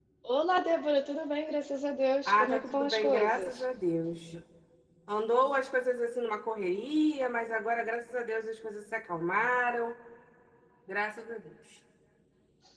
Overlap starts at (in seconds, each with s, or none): 2.2 s